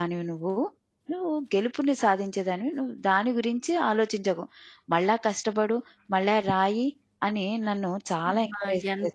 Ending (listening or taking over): taking over